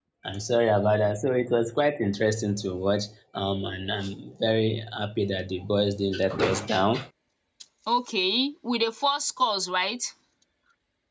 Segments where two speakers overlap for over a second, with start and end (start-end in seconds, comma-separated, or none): none